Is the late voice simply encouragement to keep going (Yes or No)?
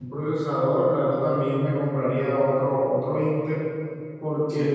Yes